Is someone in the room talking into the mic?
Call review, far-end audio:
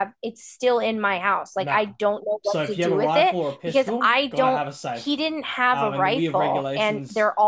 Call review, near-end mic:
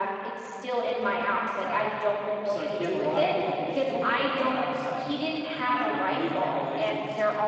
No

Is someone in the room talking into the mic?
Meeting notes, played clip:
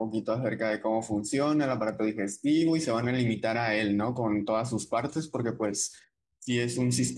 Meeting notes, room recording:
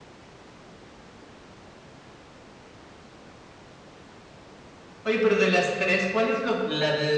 Yes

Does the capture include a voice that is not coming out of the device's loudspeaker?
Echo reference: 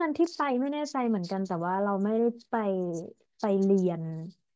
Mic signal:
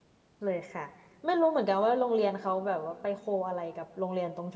Yes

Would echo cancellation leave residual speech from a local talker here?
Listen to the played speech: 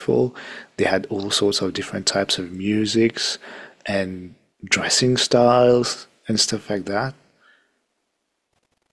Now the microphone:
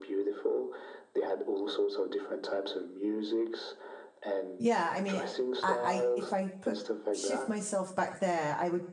Yes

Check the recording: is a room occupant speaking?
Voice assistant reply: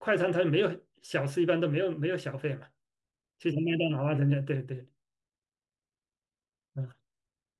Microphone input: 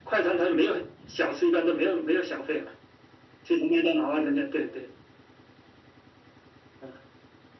No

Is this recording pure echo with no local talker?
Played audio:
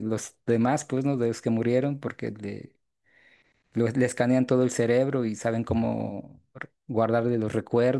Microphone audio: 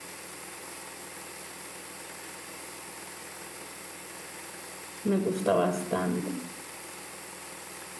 No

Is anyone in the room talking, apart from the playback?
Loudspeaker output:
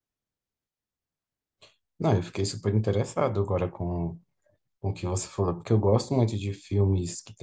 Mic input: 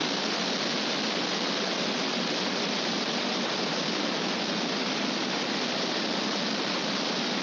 No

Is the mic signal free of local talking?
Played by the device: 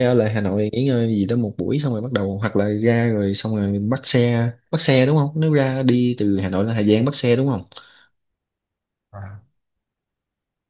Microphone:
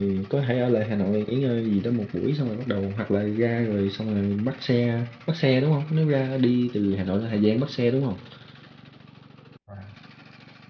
Yes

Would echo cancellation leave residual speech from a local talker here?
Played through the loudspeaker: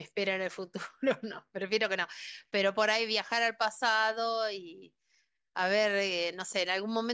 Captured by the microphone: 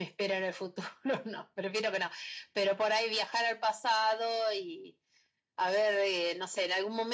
No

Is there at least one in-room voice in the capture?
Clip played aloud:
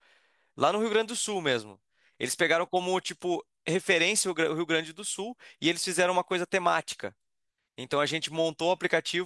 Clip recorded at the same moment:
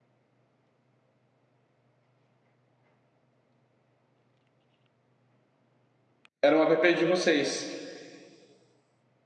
Yes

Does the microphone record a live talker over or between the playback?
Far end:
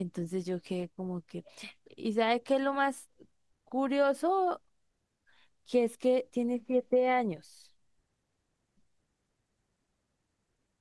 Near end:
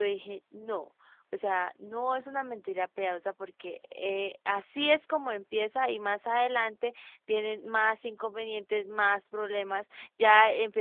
Yes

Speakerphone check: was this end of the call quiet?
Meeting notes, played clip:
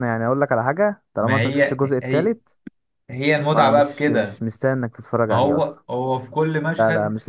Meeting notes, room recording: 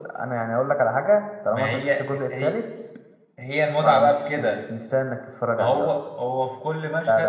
Yes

